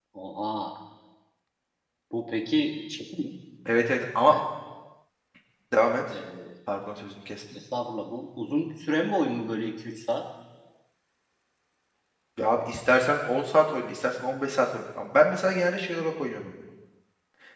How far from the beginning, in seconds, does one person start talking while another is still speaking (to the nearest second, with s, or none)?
none